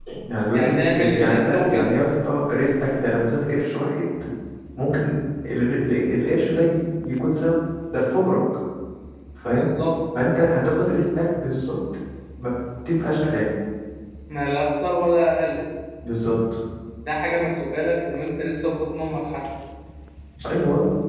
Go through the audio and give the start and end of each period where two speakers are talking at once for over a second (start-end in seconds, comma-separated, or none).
0.5-1.9